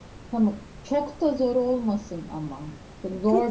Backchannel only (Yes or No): No